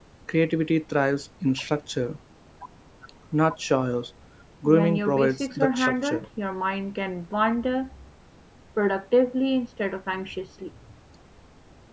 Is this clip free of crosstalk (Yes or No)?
No